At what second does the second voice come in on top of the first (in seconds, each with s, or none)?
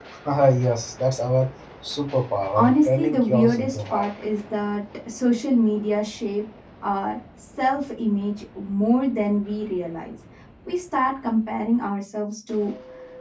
2.5 s